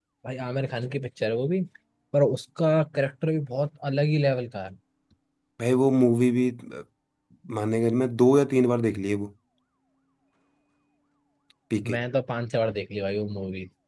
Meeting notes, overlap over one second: none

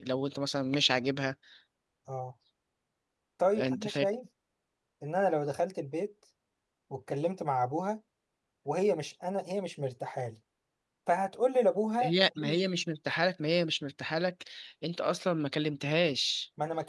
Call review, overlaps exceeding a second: none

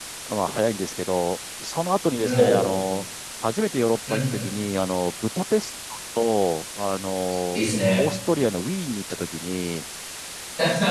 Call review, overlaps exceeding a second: none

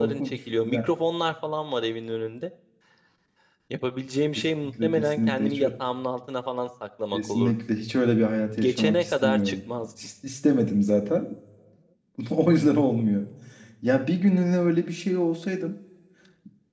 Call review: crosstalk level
present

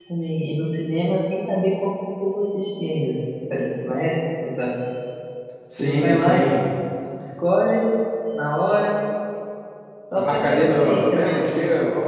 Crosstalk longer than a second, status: present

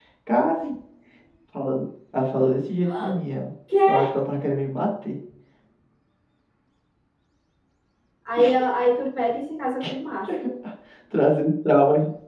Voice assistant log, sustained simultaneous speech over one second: none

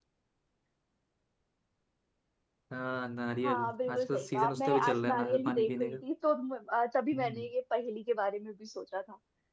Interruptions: present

